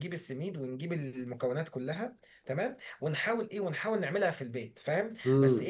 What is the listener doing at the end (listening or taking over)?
listening